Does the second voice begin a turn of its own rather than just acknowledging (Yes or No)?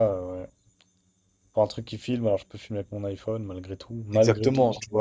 Yes